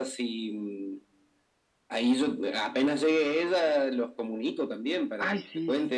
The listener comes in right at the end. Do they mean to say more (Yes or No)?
Yes